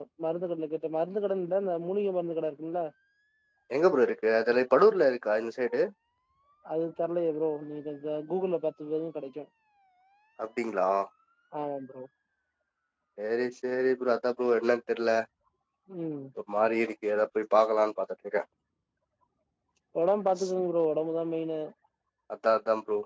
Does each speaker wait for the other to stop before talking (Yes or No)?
Yes